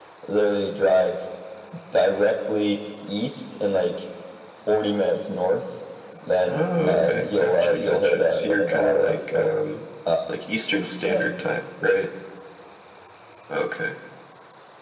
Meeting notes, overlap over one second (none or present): present